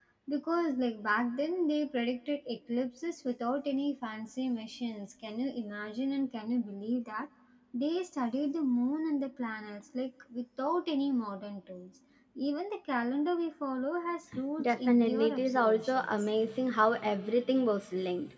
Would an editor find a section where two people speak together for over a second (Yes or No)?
Yes